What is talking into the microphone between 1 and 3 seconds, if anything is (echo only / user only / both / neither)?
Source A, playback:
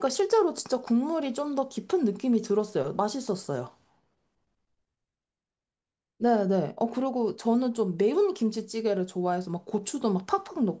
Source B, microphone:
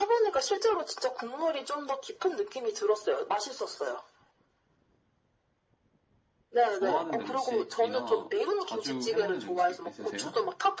echo only